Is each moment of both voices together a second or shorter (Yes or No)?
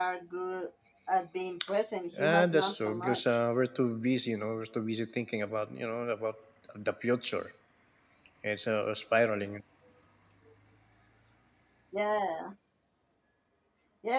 No